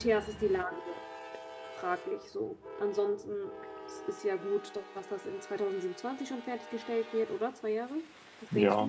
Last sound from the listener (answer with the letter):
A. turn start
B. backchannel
A